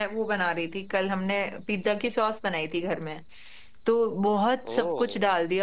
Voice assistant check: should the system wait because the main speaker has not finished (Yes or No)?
Yes